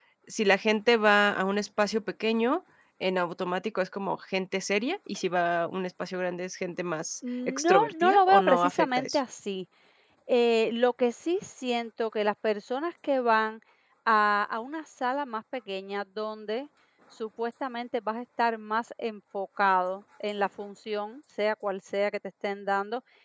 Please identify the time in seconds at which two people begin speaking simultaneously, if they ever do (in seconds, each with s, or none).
7.5 s